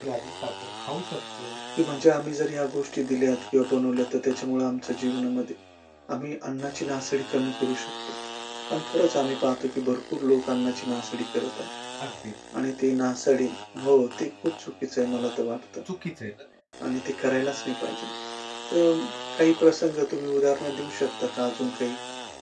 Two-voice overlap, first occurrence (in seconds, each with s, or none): none